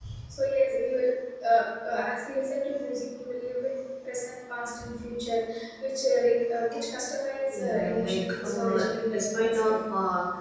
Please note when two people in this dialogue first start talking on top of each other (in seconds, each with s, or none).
7.5 s